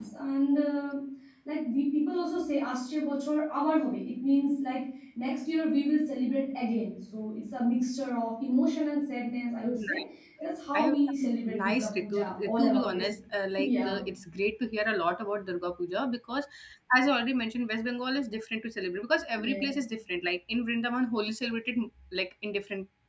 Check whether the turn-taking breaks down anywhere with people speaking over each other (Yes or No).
Yes